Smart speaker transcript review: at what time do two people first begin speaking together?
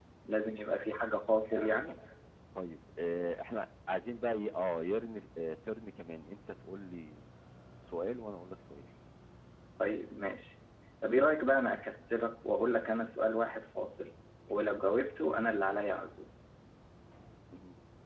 none

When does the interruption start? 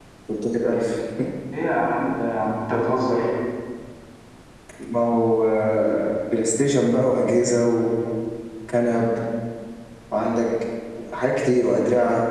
none

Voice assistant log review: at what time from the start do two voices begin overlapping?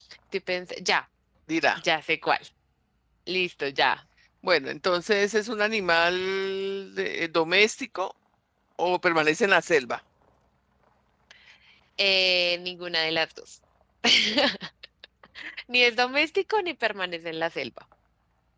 none

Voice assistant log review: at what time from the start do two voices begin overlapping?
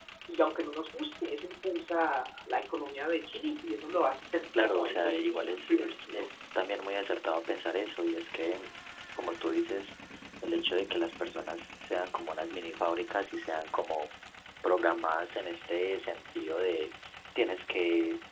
5 s

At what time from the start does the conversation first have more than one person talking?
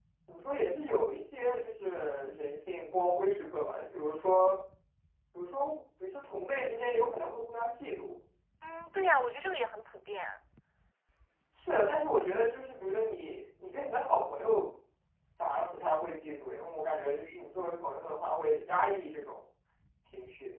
none

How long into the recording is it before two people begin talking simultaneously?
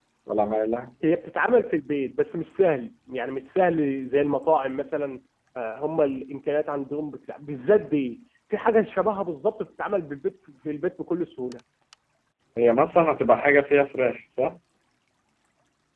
none

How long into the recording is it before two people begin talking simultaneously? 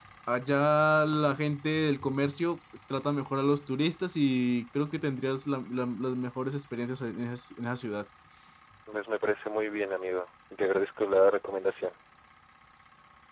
none

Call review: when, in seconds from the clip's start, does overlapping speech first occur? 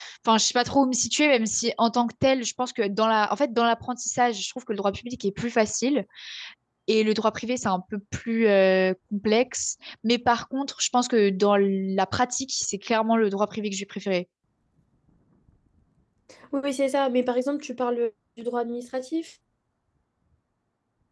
none

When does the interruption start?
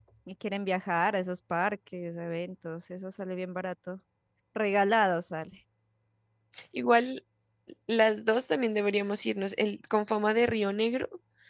none

